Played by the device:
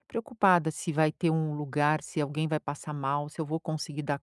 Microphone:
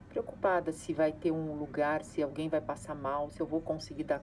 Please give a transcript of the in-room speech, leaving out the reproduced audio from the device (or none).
none